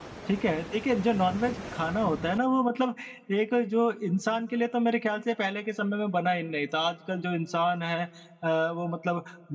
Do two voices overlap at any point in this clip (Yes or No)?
No